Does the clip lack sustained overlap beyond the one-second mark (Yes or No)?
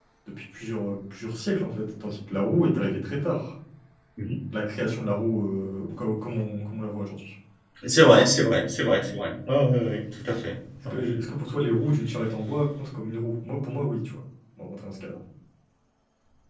Yes